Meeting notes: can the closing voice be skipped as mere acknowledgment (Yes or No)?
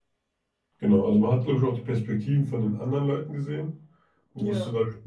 Yes